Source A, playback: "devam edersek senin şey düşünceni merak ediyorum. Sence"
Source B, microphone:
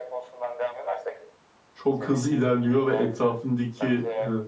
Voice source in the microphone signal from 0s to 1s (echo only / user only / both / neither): echo only